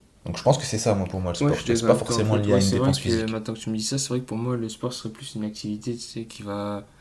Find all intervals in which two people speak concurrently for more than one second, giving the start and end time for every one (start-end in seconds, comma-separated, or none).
1.4-3.3